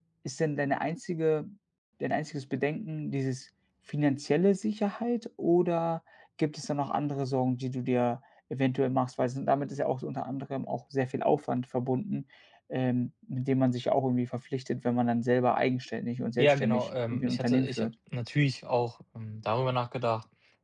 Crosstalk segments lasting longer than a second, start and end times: 16.4-17.9

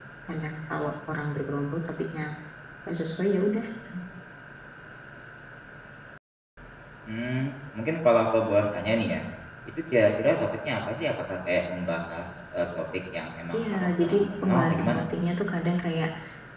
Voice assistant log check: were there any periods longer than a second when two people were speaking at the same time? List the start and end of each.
13.6-15.0

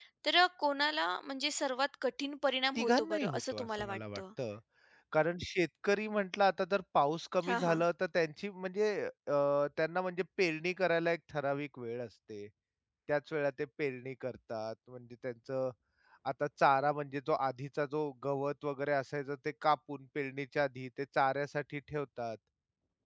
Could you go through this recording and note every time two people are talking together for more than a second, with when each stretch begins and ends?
2.8-4.2

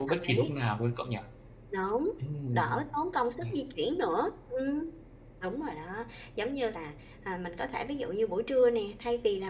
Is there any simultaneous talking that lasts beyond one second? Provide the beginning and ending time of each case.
none

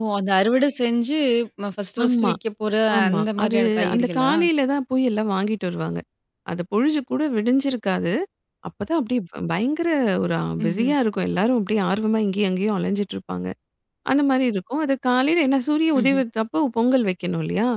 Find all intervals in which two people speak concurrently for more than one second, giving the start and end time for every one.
3.0-4.3

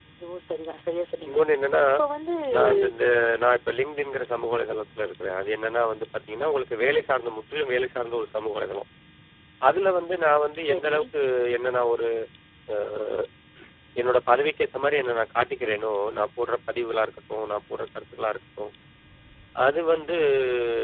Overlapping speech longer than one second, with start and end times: none

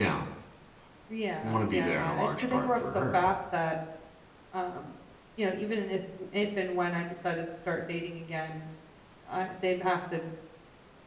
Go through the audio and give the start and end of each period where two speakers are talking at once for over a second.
1.4-3.3

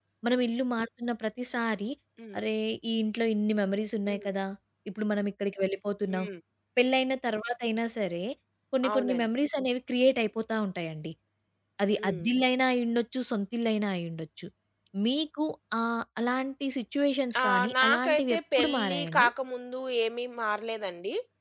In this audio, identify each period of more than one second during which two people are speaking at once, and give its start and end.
17.4-19.3

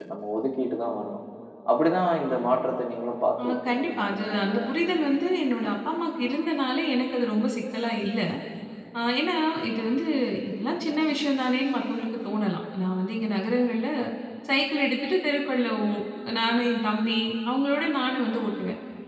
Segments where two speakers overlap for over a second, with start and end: 3.4-4.6

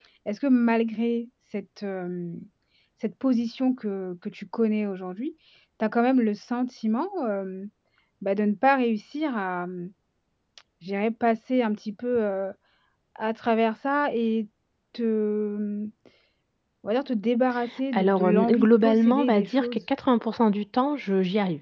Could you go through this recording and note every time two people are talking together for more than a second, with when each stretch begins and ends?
17.9-19.8

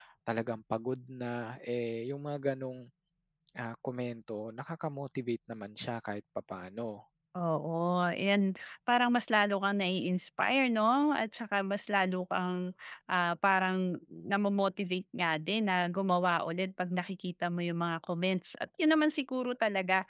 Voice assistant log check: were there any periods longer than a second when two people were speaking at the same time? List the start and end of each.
none

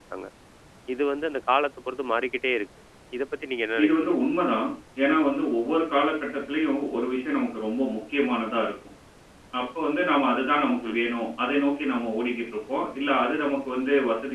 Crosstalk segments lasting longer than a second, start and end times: none

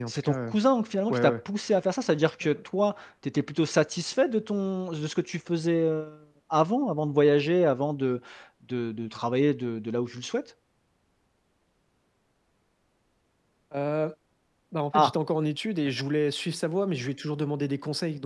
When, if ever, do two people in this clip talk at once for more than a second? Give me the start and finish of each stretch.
none

